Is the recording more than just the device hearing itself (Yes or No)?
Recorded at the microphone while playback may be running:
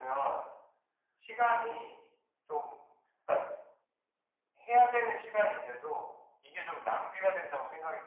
No